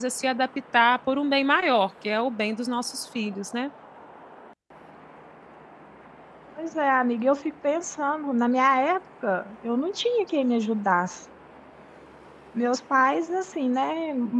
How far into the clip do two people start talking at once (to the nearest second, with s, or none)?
none